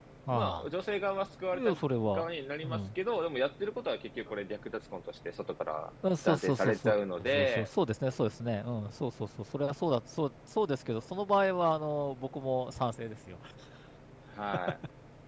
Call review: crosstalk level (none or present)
present